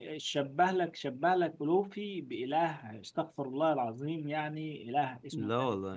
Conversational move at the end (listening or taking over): listening